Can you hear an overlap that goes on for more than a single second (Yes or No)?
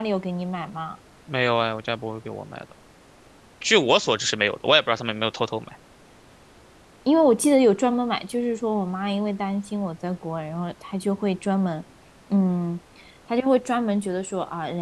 No